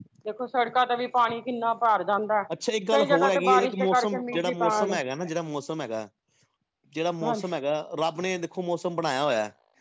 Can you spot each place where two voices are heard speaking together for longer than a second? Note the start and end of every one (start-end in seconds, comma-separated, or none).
2.9-5.0